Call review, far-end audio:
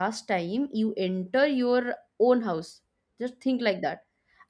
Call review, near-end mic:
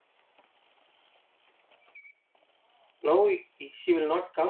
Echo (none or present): none